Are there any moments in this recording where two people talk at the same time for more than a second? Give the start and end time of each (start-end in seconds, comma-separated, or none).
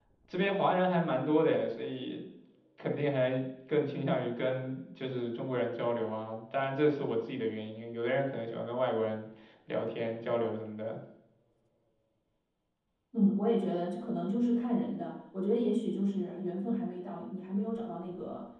none